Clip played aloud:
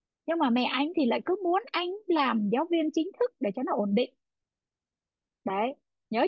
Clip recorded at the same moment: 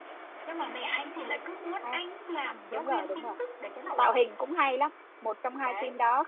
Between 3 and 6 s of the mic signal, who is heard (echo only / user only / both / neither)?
both